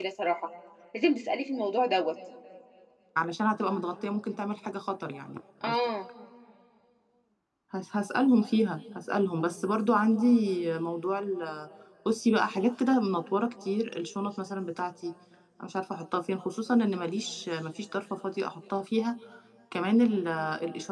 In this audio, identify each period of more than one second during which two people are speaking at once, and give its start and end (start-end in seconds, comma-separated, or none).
none